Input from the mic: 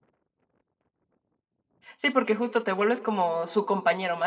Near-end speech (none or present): present